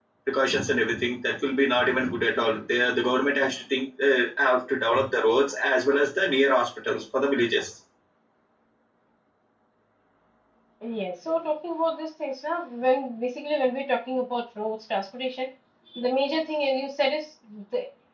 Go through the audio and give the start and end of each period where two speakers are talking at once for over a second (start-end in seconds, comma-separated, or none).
none